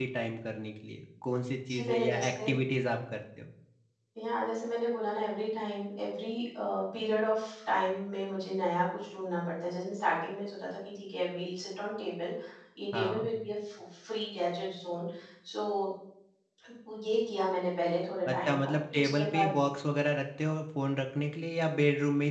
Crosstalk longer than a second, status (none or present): present